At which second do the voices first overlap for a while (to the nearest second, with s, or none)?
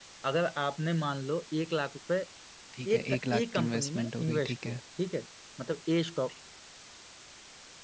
3 s